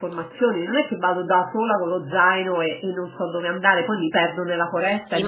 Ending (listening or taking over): taking over